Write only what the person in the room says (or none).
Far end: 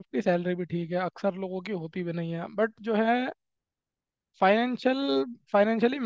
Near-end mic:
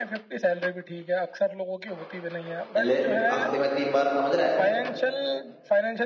ले हफ्ते में तीन बार समझ रहा है